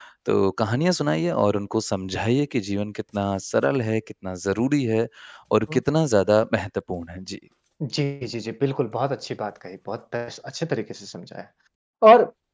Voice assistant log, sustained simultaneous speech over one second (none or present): none